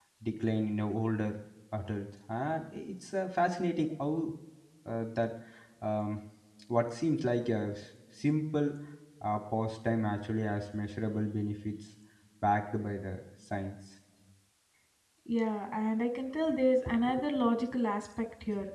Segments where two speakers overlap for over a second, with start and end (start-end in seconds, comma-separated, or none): none